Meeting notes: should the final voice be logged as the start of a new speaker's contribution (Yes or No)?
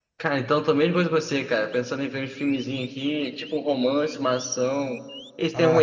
Yes